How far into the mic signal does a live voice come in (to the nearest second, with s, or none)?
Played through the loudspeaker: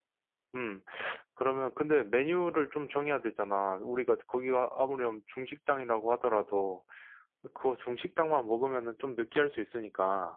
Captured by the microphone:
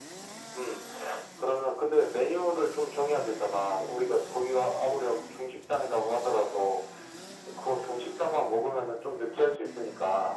none